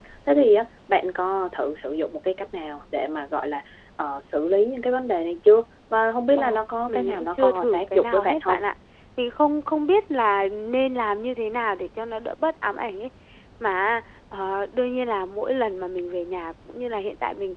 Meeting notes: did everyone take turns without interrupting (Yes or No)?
No